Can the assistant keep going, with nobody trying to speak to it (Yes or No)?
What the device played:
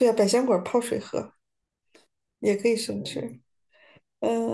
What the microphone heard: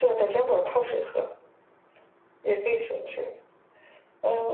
Yes